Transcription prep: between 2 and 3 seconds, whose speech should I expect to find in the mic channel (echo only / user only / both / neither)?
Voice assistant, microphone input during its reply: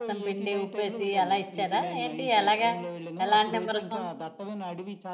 both